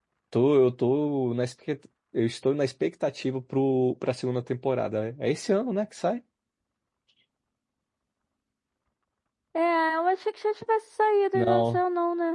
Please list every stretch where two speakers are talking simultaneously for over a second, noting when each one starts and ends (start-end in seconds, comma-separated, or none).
none